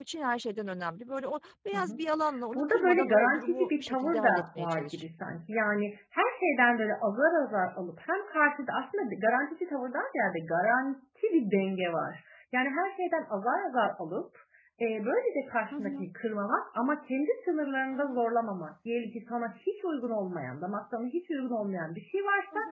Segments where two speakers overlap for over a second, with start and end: 2.5-5.1

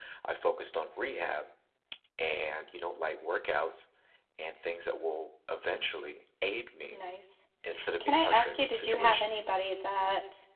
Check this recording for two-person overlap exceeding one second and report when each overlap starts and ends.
8.0-9.2

